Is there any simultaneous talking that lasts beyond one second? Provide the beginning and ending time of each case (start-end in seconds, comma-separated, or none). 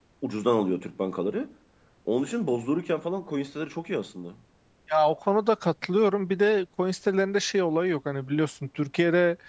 none